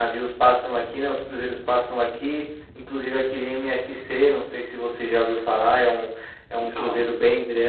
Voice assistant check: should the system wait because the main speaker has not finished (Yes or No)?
Yes